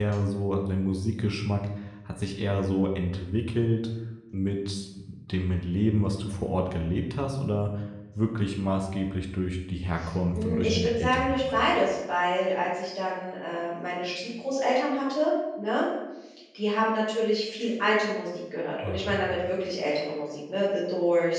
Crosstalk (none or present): present